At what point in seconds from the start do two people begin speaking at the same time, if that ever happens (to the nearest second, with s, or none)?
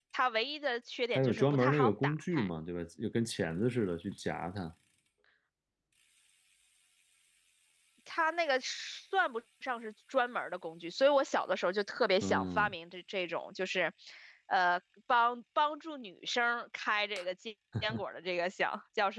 1 s